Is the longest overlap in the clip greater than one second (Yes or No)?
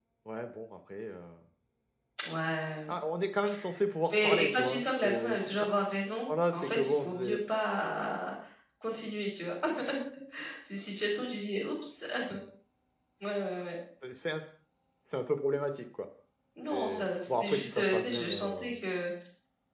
Yes